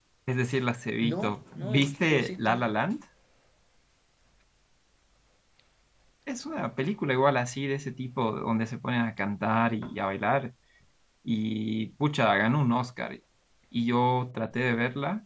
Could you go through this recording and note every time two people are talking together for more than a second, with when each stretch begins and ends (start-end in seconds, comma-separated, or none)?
1.0-2.6